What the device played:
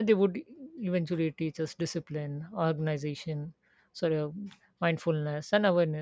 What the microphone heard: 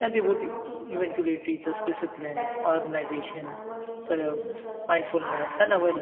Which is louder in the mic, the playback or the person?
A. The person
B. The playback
B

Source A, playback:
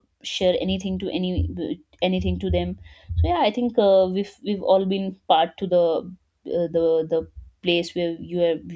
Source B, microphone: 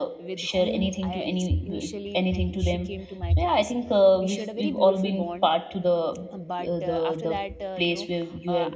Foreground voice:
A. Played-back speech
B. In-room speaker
A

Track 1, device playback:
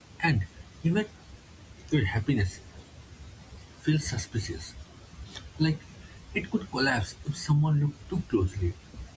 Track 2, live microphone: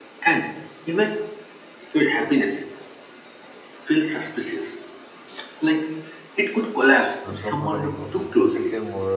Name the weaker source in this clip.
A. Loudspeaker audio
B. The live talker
B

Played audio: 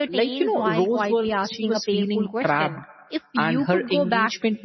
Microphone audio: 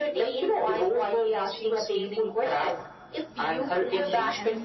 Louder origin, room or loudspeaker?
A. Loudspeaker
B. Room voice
A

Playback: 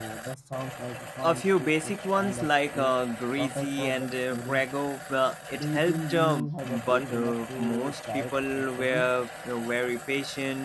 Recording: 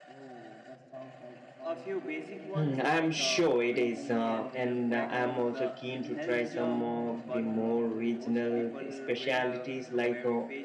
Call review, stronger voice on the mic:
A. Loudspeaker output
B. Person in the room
B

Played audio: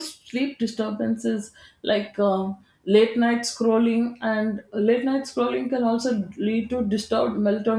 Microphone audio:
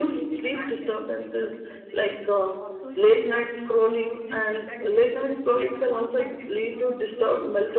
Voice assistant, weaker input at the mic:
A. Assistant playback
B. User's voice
B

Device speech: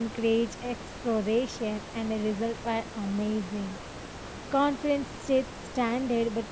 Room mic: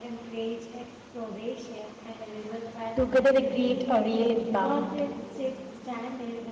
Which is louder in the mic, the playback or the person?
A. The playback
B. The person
B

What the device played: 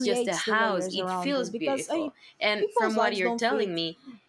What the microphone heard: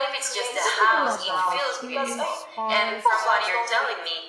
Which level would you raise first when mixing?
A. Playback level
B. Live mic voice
B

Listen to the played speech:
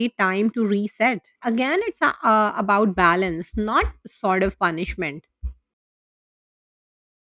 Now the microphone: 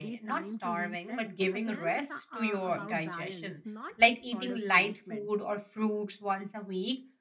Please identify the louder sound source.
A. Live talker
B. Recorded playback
A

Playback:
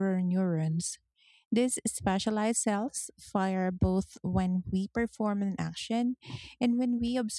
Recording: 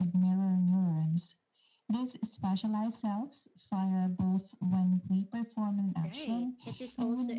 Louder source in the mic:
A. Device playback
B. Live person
A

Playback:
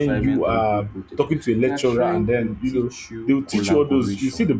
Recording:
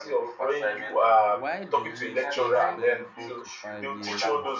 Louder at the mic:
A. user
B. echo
B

